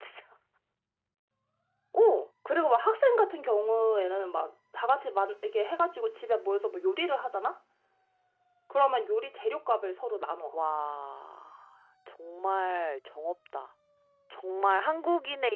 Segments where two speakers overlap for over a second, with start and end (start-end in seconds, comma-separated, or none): none